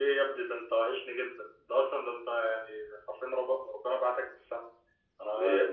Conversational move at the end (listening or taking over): listening